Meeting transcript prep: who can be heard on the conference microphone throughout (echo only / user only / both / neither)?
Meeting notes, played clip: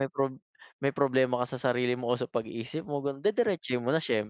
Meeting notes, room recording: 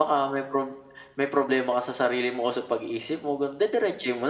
echo only